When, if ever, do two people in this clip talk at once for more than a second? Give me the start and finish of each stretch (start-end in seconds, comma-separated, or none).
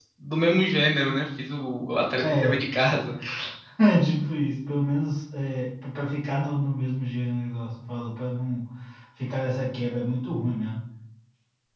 none